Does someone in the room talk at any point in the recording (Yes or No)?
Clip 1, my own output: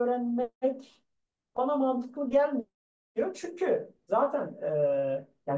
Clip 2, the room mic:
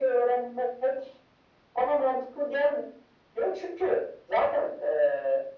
No